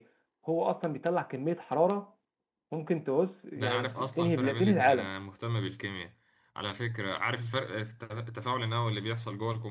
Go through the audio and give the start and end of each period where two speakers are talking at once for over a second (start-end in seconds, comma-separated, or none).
3.6-5.1